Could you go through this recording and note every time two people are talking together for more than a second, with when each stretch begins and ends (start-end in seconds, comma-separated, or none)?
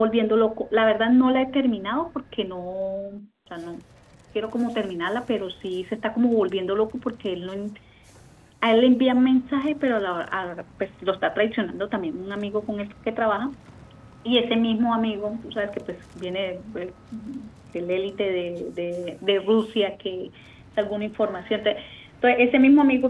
none